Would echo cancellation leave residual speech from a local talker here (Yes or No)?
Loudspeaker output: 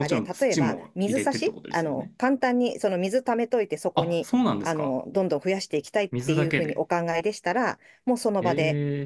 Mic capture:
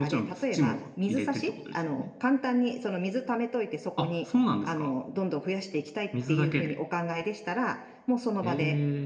No